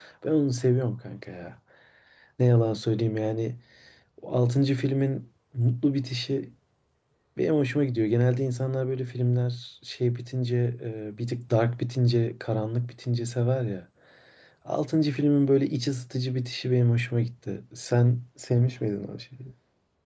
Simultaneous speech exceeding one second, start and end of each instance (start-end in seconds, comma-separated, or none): none